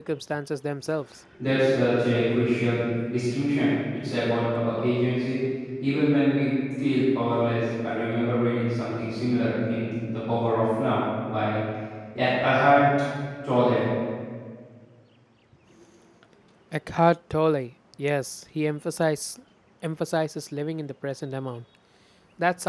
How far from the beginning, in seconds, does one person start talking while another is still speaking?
none

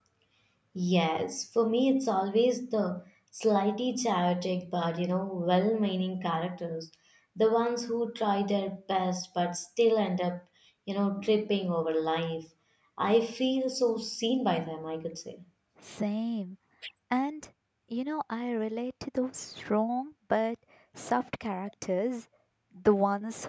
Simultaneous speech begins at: none

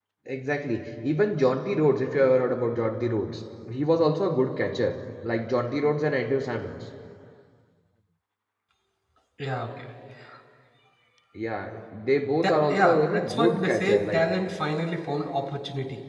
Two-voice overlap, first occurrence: 12.4 s

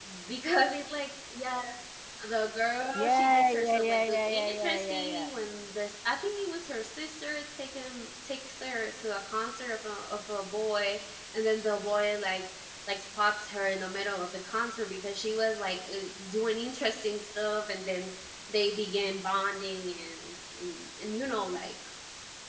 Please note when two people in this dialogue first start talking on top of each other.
2.9 s

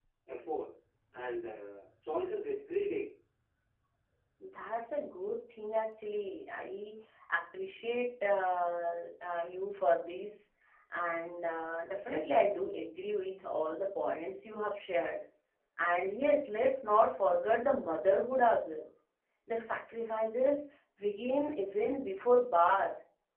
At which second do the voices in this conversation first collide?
none

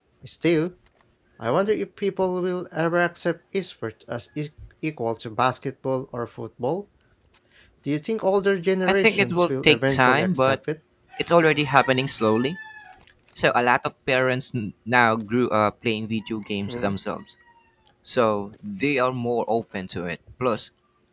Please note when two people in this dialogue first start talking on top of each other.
8.8 s

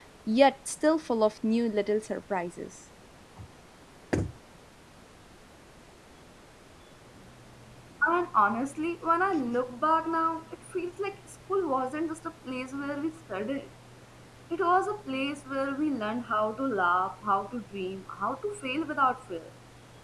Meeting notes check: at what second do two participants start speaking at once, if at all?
none

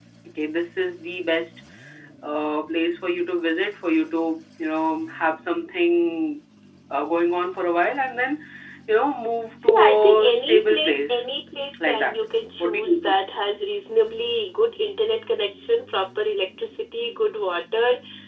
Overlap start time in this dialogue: 9.6 s

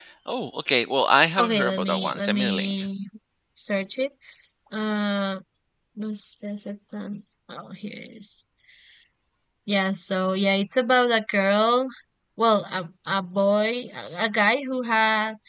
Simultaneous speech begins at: 1.4 s

